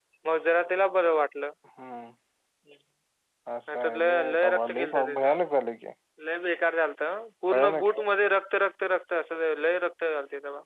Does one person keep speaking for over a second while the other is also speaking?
Yes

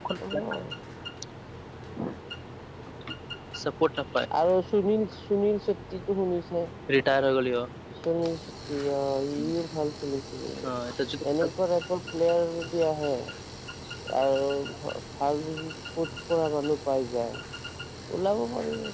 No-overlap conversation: Yes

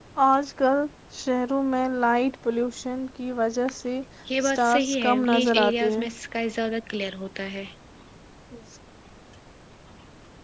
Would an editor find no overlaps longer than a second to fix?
No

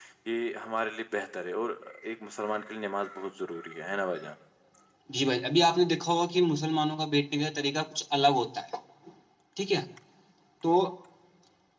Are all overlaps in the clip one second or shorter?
Yes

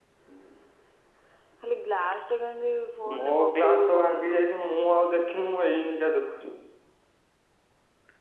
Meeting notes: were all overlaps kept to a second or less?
No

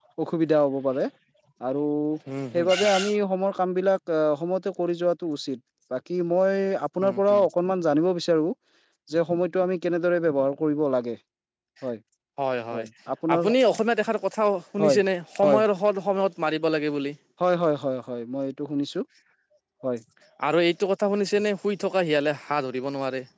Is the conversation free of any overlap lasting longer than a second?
Yes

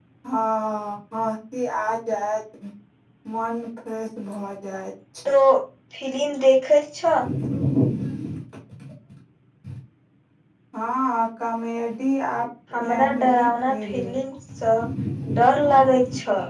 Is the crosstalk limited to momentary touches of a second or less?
No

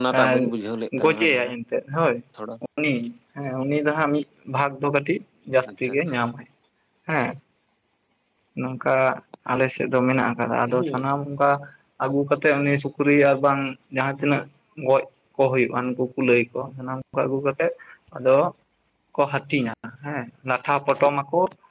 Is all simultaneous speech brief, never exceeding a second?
Yes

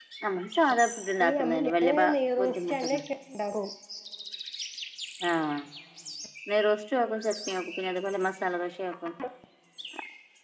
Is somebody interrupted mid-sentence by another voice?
Yes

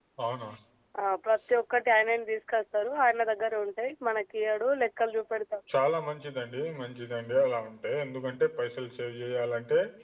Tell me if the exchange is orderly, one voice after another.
Yes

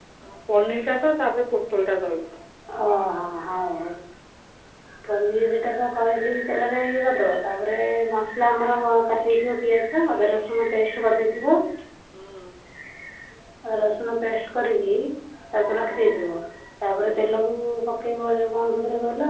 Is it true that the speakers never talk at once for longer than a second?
Yes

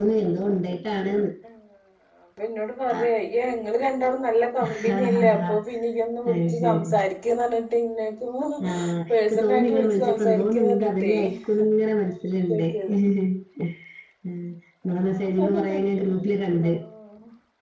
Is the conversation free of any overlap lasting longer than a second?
No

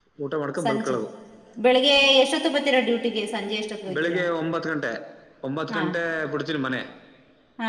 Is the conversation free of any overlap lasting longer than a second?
Yes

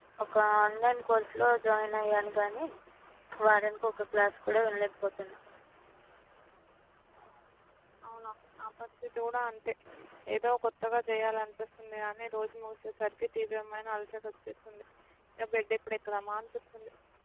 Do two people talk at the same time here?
No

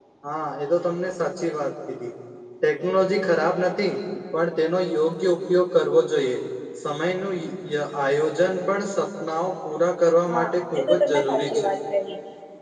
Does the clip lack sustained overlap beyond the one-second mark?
No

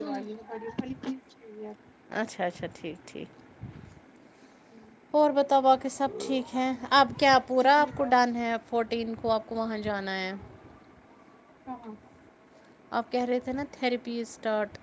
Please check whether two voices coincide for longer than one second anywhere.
No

